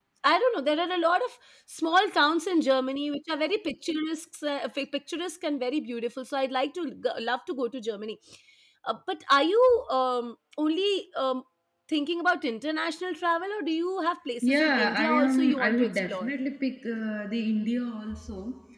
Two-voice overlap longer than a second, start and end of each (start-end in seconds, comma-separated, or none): 14.4-16.3